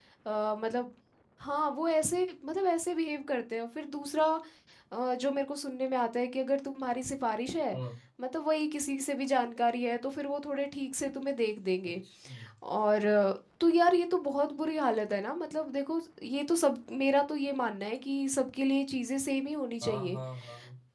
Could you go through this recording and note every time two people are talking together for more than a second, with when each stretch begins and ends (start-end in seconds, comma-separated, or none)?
none